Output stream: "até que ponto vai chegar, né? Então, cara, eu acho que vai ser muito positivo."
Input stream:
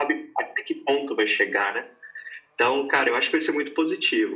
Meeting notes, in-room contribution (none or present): none